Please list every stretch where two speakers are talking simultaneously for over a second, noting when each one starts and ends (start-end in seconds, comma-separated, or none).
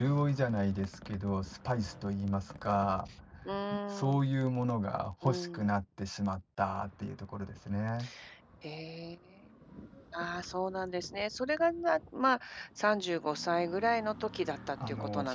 none